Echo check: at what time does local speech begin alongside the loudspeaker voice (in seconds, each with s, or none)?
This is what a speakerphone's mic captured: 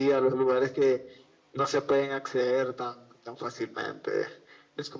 none